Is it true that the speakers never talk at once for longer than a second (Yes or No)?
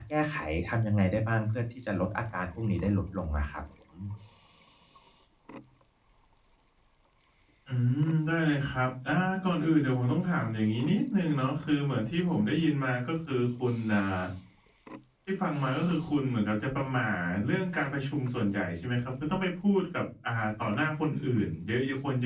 Yes